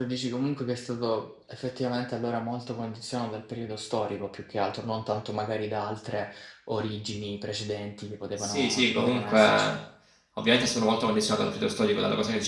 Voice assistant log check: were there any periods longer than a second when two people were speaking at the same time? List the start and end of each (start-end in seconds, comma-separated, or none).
8.4-9.7